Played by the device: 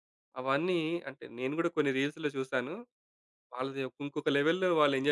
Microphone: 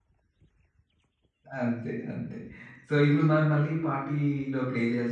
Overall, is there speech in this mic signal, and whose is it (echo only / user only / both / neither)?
user only